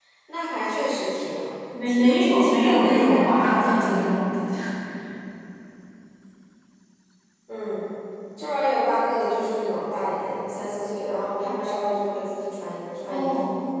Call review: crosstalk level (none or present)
present